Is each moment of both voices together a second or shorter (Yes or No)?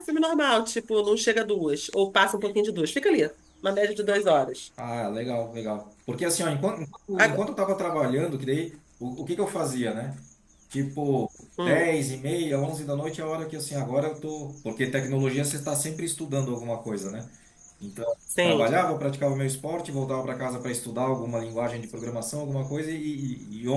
Yes